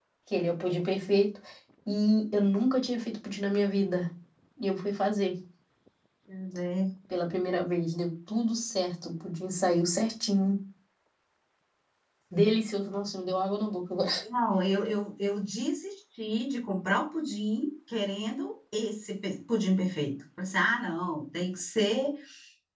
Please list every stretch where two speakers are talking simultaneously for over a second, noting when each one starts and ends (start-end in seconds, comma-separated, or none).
none